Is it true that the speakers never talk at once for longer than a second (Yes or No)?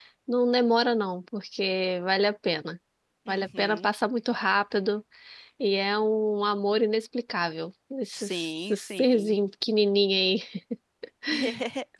No